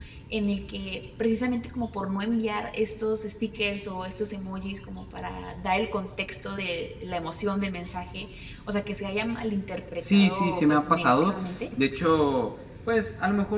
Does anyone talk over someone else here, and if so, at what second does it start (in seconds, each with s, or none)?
10.0 s